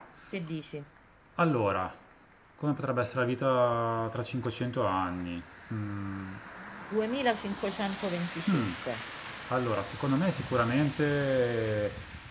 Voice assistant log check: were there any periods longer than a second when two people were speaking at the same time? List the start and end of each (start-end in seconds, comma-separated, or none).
none